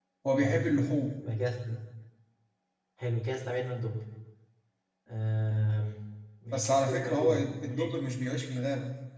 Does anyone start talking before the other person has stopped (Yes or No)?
Yes